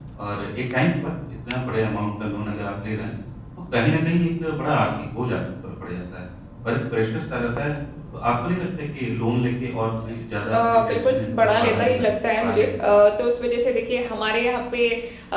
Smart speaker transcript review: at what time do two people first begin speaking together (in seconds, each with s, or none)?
10.5 s